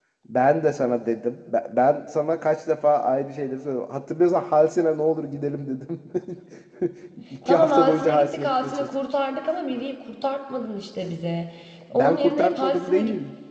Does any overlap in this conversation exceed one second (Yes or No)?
Yes